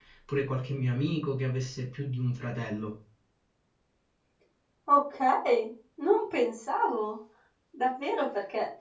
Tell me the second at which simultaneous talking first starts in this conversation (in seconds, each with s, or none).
none